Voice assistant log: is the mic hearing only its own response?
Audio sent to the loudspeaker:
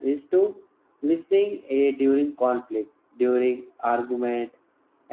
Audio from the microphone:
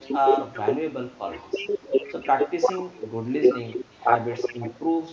No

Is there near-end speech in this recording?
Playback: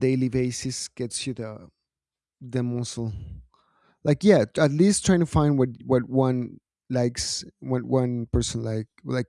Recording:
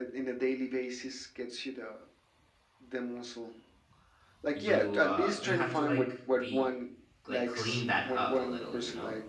Yes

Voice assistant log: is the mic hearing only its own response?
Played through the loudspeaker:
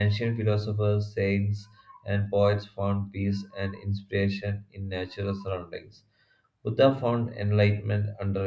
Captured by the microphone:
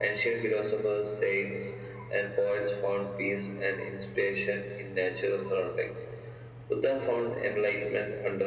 Yes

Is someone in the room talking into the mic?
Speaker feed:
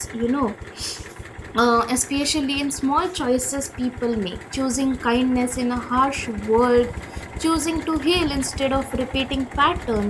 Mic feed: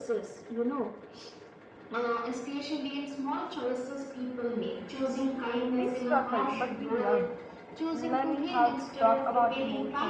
Yes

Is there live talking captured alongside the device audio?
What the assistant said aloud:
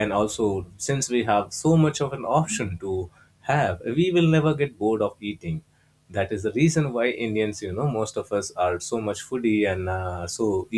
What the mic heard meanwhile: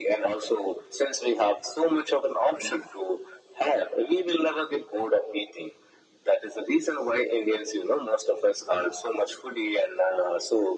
No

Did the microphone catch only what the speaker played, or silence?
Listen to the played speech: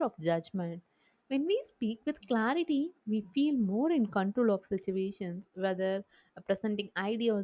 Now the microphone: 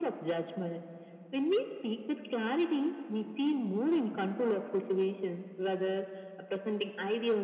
Yes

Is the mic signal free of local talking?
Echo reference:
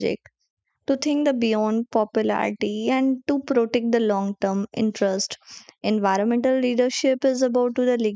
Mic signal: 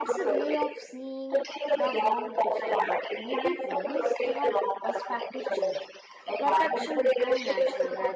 No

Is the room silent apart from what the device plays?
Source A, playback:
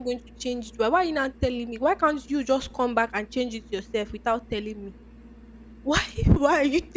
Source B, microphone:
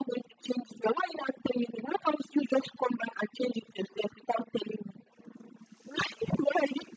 Yes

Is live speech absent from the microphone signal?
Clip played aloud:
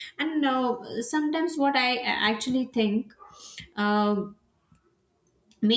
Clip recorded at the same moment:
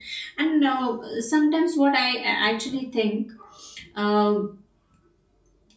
Yes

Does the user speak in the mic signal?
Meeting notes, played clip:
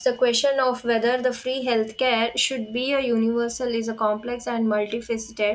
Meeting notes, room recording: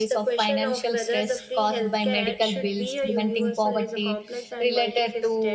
Yes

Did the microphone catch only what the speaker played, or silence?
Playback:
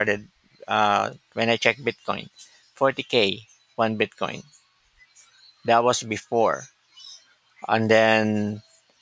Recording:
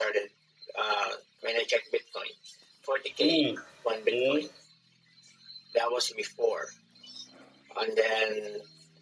No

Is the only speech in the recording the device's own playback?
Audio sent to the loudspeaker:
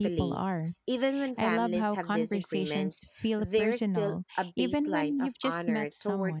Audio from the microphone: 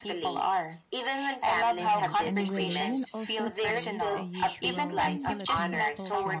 No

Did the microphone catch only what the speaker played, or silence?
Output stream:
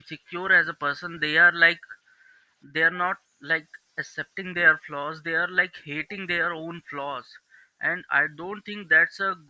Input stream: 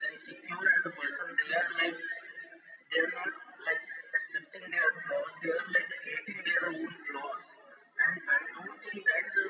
Yes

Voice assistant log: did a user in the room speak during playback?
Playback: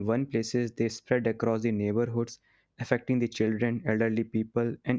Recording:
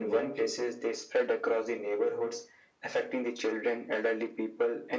No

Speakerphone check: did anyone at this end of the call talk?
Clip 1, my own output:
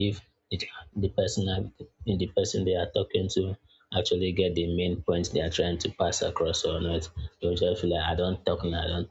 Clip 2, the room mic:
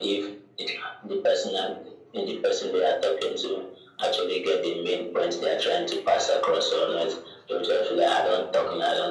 No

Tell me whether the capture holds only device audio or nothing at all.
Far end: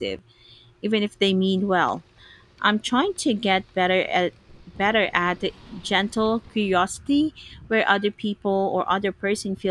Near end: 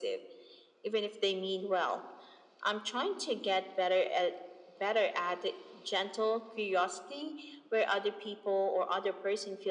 Yes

